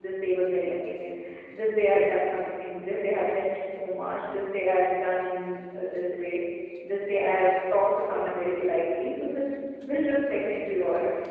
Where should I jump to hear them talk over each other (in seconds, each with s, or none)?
none